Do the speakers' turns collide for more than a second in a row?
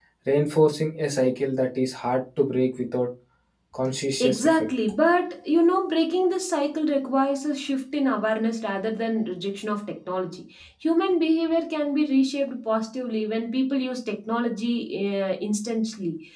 No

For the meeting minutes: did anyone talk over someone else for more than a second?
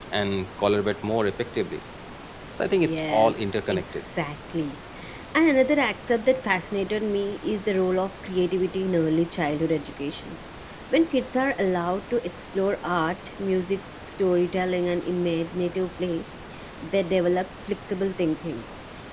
Yes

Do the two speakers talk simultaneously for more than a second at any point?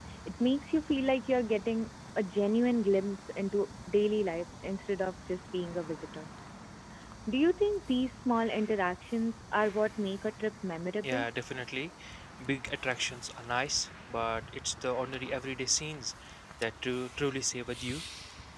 No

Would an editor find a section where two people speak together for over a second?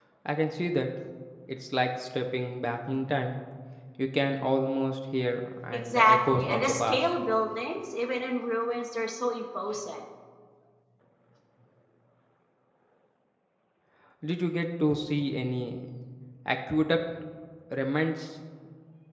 Yes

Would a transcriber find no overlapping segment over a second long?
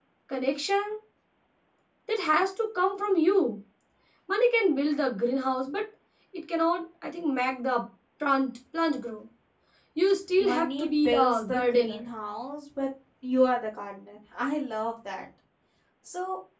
No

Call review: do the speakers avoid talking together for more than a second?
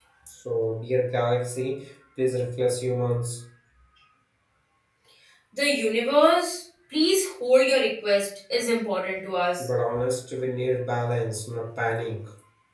Yes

